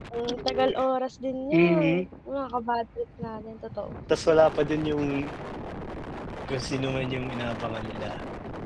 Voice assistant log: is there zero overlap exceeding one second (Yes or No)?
Yes